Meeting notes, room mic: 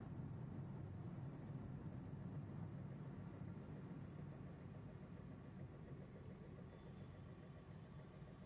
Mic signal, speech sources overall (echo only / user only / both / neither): neither